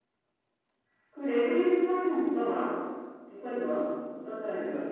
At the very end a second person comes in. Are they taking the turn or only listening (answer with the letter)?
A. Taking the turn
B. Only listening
A